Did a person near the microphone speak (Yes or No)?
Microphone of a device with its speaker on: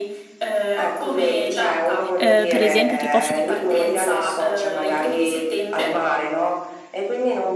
Yes